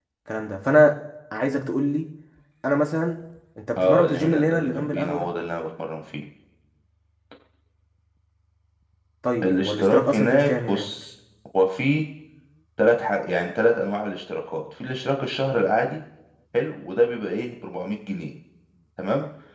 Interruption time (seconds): 3.8 s

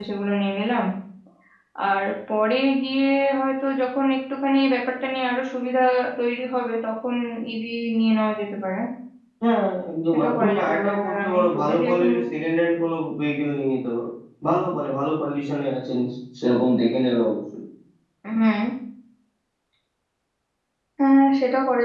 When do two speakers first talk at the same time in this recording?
10.1 s

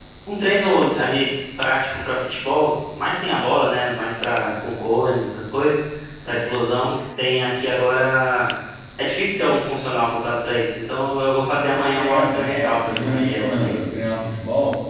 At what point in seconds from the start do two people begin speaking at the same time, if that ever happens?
11.7 s

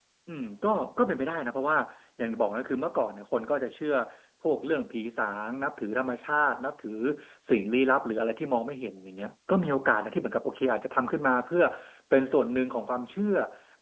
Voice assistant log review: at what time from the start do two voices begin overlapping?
none

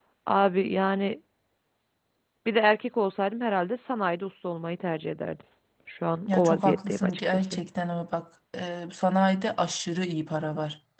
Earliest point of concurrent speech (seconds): 6.3 s

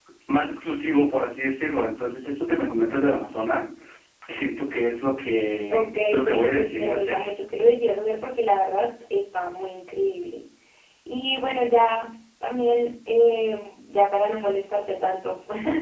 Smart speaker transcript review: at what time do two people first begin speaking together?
5.7 s

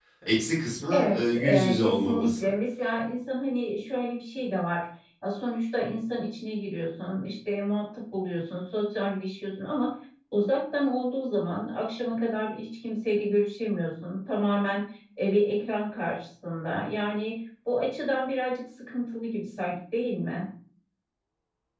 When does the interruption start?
0.9 s

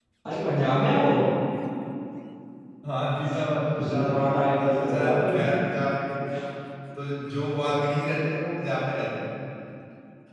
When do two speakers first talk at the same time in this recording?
3.8 s

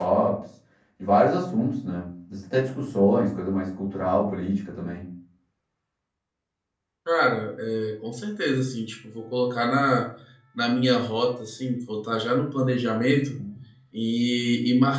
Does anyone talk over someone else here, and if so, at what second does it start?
none

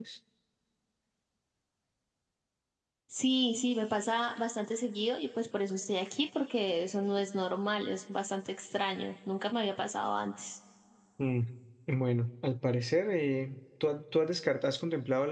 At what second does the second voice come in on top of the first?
none

